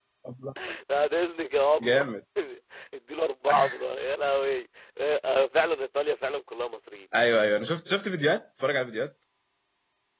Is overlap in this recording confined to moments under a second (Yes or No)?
Yes